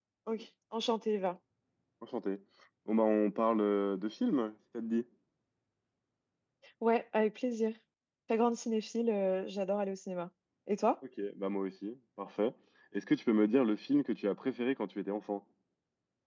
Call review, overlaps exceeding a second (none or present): none